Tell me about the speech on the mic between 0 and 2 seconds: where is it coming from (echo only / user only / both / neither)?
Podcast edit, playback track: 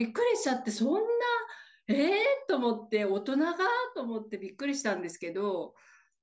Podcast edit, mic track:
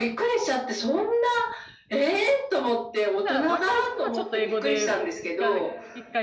echo only